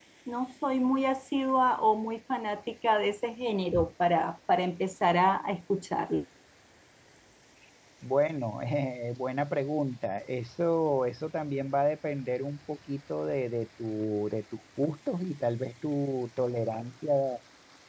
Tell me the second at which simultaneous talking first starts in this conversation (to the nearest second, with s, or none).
none